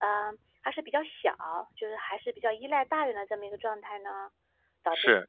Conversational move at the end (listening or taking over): taking over